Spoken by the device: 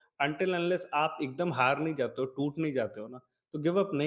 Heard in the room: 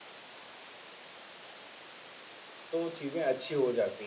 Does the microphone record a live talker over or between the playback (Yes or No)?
Yes